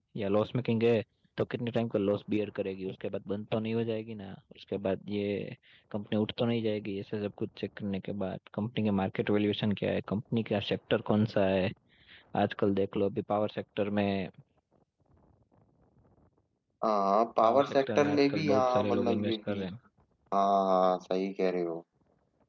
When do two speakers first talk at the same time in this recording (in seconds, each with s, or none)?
17.4 s